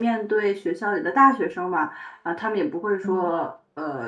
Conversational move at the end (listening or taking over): listening